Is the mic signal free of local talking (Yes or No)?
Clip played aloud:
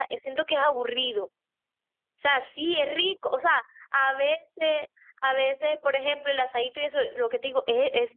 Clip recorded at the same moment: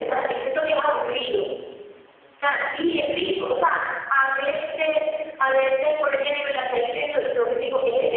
Yes